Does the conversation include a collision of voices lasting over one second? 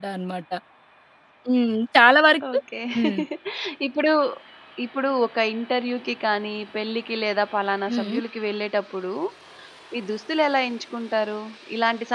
No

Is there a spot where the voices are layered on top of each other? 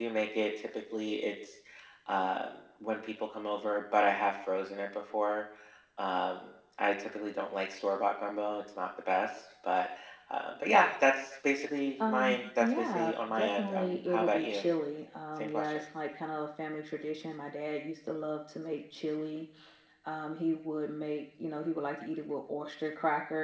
Yes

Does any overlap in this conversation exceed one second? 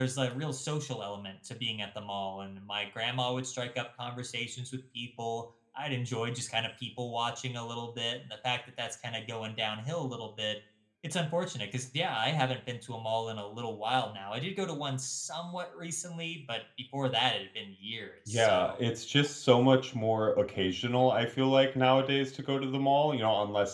No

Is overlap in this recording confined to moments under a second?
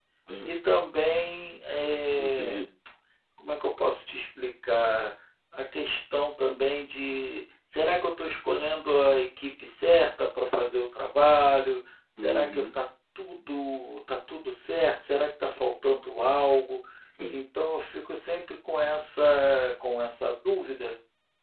Yes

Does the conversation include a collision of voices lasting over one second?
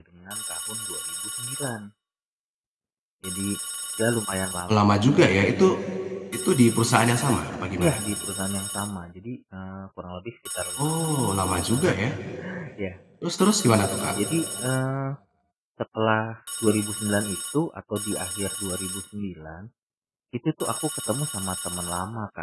No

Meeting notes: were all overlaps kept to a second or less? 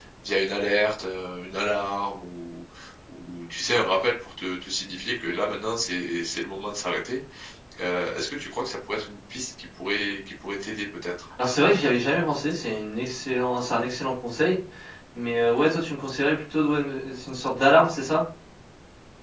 Yes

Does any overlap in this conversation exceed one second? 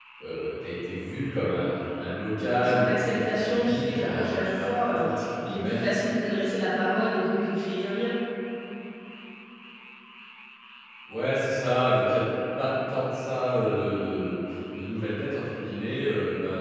Yes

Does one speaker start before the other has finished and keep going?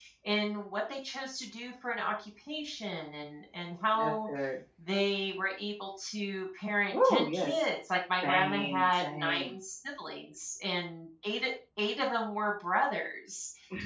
Yes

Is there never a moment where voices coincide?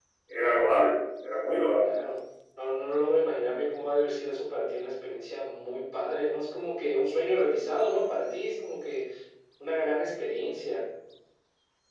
Yes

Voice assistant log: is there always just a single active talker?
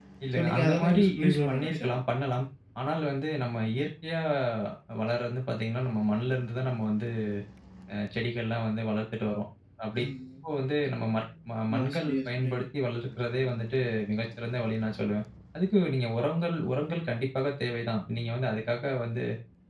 No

